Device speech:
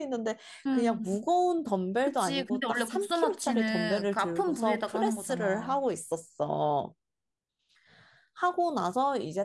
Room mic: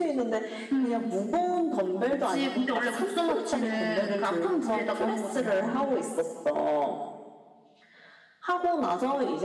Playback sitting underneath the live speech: No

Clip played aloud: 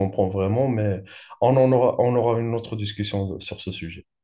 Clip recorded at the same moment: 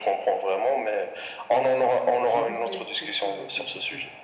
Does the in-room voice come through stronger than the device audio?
No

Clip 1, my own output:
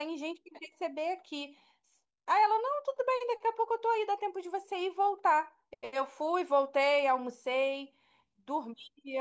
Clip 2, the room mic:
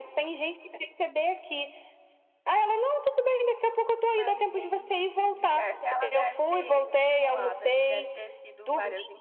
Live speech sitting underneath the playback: Yes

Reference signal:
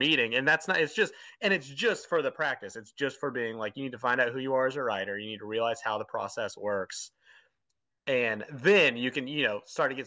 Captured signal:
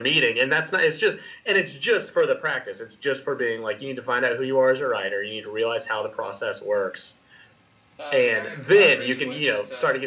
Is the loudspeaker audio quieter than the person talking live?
No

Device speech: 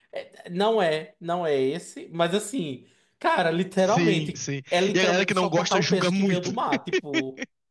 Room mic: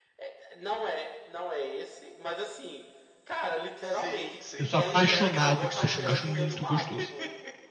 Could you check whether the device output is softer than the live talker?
Yes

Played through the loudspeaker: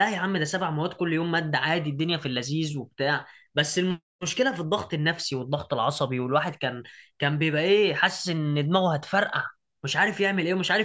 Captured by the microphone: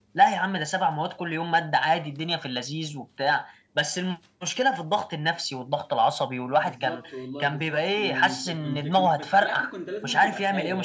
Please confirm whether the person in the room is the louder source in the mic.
No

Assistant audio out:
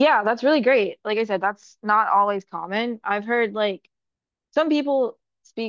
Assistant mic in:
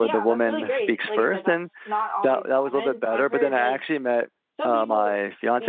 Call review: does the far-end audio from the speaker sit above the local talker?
No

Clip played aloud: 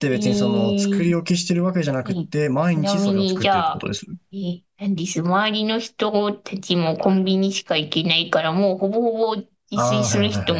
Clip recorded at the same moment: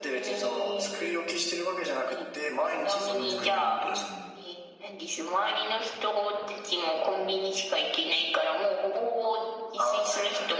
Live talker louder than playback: No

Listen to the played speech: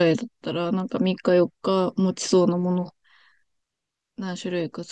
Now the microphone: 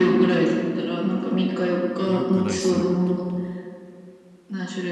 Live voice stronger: No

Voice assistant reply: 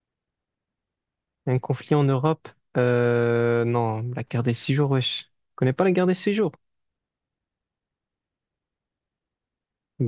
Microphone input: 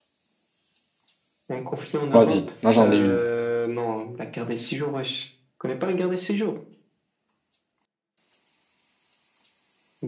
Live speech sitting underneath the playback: No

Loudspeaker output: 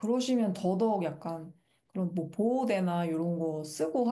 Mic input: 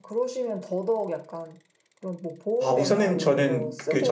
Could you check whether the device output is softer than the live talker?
Yes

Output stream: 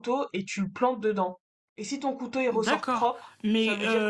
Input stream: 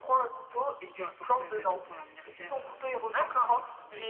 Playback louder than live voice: Yes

